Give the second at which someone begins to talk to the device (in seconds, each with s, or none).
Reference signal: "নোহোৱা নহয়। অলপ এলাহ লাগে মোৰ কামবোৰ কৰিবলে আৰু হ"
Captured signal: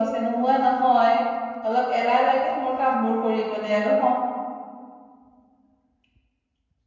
none